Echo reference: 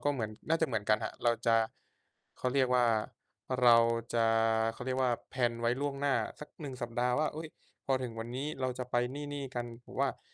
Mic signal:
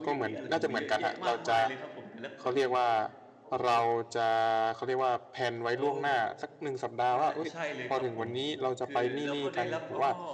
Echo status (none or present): present